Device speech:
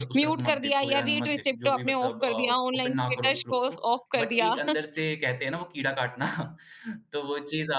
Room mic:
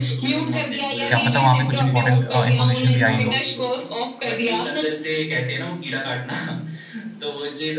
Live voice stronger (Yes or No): Yes